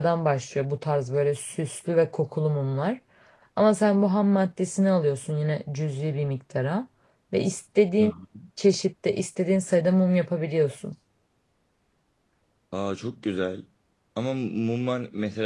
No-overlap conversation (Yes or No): Yes